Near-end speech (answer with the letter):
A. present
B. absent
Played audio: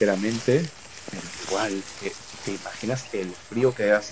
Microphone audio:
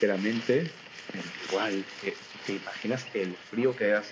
B